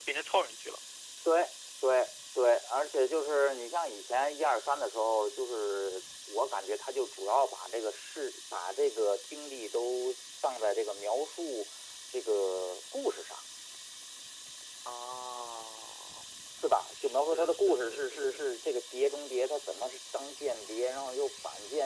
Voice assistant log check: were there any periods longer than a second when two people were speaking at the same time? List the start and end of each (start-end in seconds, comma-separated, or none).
16.9-18.4